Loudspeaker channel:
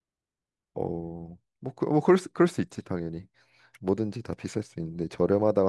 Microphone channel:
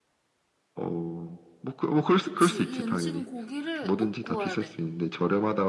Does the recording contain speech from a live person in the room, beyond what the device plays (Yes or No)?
Yes